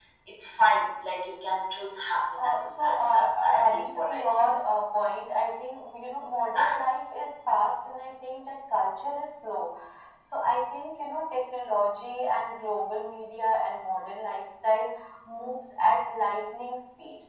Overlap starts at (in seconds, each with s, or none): 2.4 s